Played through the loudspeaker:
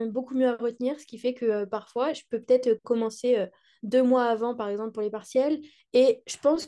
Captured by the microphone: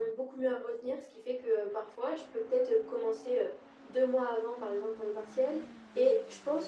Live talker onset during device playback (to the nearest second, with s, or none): none